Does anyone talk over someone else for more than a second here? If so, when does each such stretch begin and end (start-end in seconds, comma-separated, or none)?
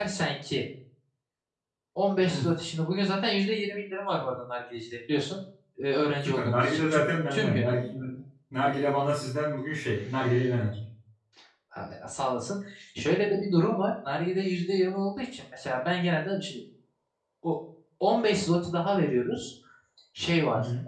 6.2-7.7